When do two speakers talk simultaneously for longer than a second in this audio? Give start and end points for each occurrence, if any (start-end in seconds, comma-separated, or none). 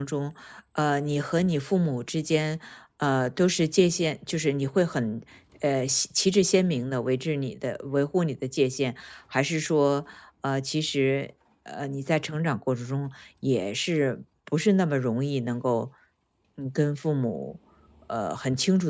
none